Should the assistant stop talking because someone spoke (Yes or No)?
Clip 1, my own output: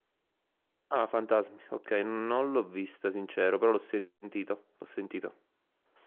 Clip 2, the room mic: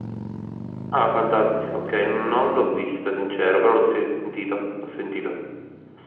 No